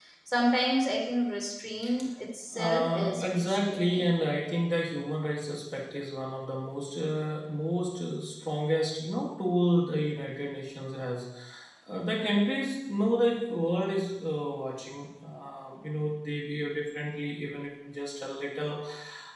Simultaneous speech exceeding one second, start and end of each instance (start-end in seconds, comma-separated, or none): 2.6-4.0